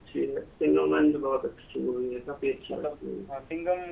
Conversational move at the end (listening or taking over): taking over